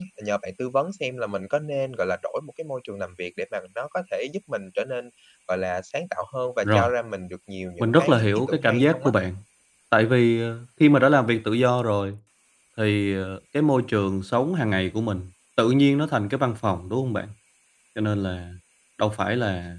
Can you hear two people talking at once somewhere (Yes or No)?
Yes